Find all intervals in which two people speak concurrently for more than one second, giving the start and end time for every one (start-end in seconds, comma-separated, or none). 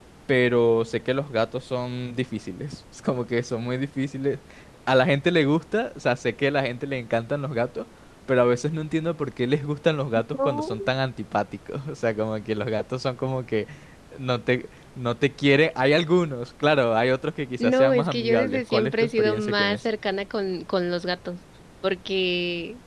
17.6-19.8